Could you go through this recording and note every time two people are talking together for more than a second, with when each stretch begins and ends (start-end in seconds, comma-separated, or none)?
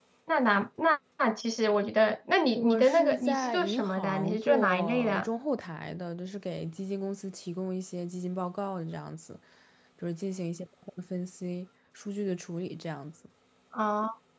2.6-5.3